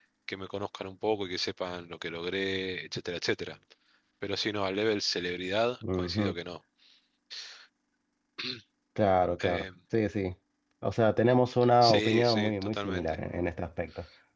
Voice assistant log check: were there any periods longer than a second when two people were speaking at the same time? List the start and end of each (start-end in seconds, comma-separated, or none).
11.8-13.2